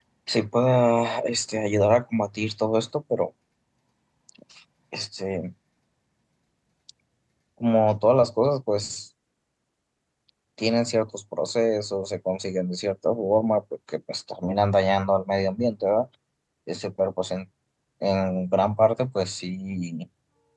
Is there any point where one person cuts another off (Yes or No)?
No